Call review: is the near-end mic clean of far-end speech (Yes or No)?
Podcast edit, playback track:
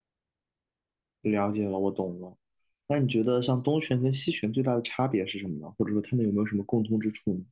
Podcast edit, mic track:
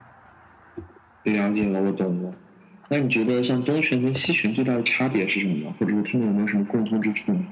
No